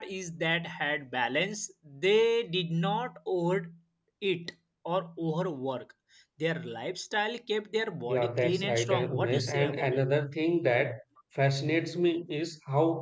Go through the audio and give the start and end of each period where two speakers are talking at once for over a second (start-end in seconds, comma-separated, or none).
8.1-10.0